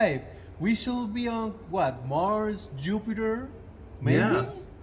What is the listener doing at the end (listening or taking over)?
taking over